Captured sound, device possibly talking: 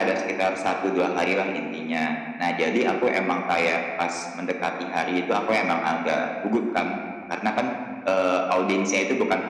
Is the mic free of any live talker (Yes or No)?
Yes